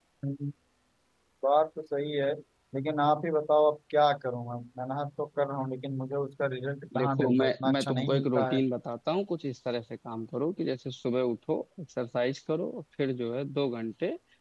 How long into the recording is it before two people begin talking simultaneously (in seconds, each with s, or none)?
6.9 s